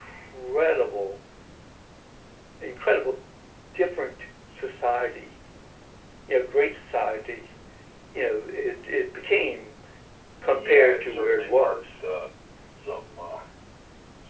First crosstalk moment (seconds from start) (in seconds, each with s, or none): 10.5 s